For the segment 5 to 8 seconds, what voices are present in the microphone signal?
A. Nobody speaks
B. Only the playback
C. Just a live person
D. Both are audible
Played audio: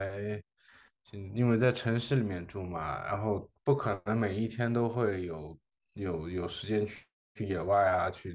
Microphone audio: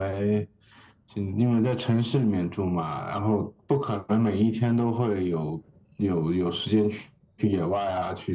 B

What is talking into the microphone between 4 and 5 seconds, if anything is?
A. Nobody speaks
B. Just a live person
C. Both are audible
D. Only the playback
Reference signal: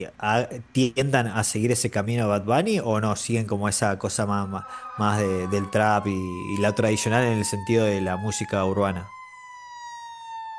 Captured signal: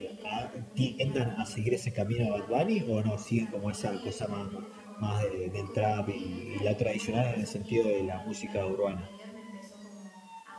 C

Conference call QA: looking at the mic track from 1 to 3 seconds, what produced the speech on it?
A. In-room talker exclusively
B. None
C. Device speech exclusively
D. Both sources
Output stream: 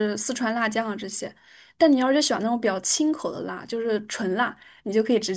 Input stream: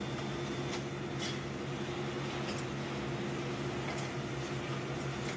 B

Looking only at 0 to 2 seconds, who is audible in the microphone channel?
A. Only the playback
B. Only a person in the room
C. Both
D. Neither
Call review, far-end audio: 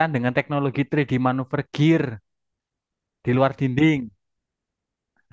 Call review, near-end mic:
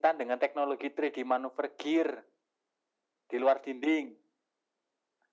A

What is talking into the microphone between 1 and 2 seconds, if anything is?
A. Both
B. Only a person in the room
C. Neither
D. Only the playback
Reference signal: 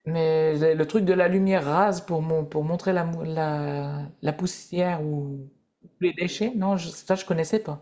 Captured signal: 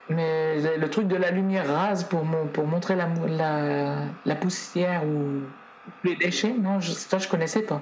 D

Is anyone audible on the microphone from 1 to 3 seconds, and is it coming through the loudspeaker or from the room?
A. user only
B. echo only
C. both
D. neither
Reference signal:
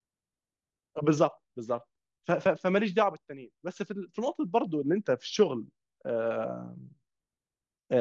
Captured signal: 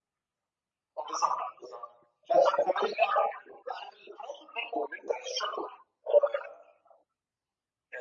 B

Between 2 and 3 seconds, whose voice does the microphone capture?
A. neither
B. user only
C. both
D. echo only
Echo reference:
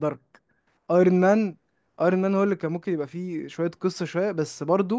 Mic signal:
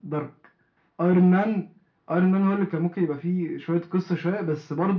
D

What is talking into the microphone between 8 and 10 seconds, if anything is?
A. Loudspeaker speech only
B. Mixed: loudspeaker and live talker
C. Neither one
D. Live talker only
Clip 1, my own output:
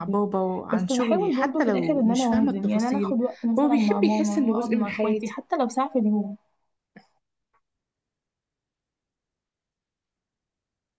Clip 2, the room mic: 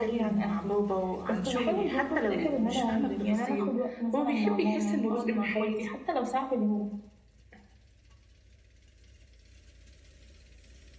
C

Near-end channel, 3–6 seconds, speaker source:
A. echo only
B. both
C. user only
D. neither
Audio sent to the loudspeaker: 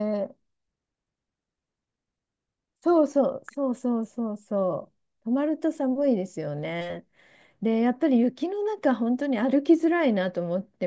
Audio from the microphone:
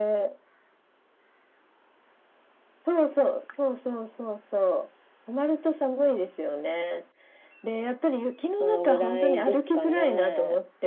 A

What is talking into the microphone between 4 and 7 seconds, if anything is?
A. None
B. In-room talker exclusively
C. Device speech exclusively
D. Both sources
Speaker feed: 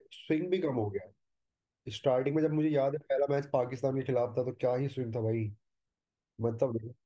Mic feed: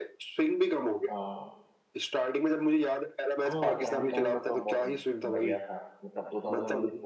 D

